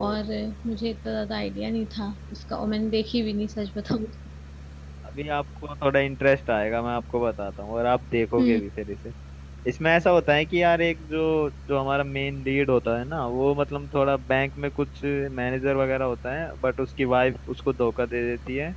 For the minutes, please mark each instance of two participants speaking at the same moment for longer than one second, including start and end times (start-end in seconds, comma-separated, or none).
none